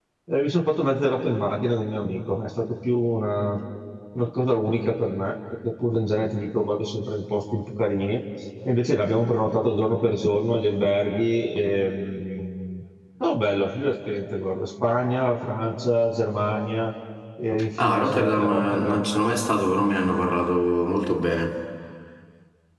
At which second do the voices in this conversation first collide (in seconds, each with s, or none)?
17.8 s